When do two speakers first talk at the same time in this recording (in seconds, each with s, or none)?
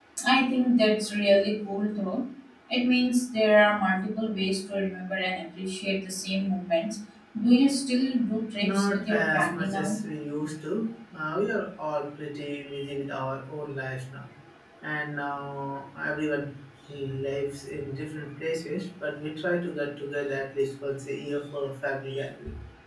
8.6 s